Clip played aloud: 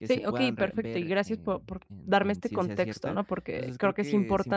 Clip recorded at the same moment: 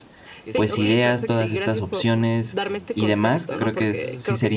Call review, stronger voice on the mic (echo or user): user